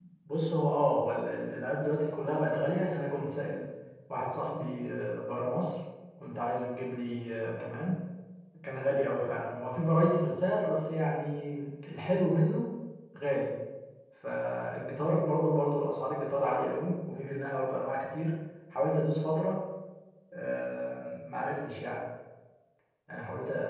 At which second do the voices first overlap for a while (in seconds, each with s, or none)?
none